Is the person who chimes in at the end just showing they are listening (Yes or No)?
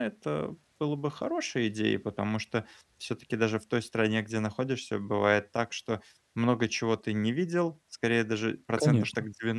Yes